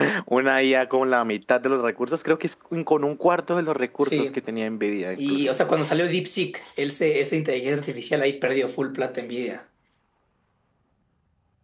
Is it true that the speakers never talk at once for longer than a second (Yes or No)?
Yes